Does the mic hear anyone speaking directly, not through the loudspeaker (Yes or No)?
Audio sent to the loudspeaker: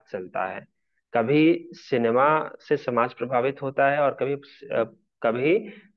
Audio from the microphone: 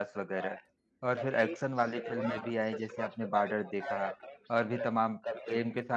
Yes